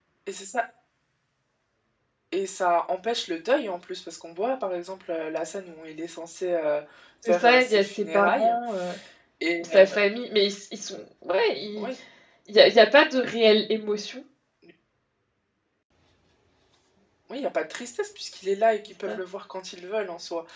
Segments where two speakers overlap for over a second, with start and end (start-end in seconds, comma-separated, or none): 7.2-8.5